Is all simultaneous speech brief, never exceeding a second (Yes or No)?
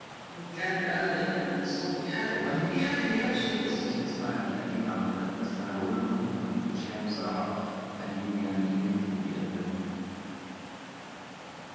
No